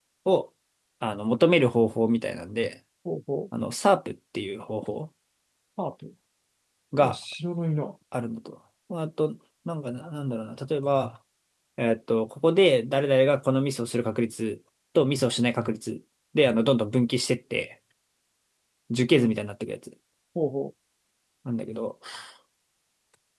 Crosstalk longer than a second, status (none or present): none